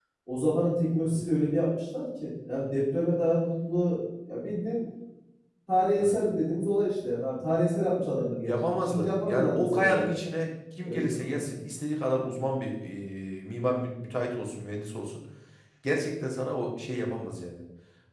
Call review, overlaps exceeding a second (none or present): present